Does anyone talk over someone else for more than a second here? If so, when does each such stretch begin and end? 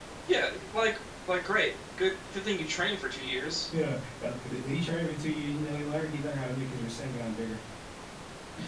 none

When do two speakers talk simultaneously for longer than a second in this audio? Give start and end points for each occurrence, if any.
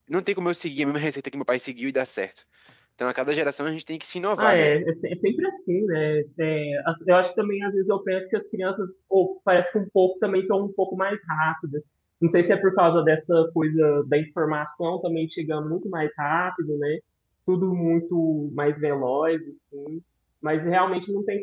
none

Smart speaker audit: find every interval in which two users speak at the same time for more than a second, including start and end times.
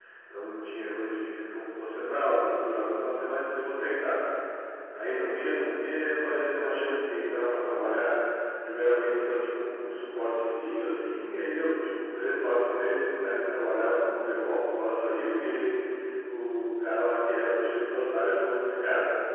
none

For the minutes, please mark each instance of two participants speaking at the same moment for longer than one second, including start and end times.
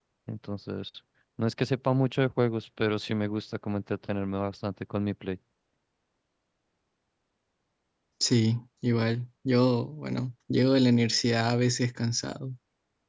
none

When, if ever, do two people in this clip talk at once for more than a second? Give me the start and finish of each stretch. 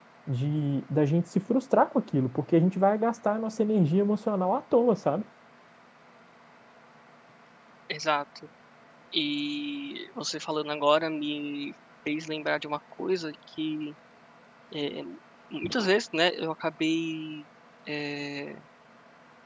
none

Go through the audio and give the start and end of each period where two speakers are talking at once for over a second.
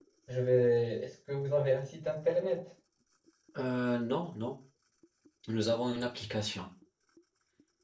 none

